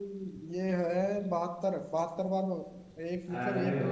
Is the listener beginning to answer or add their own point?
Yes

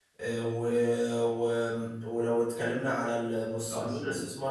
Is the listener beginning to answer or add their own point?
No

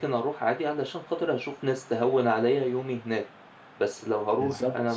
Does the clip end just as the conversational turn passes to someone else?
No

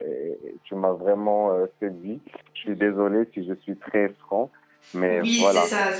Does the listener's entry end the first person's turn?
Yes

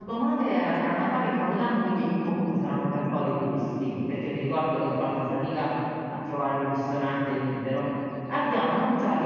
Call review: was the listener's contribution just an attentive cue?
Yes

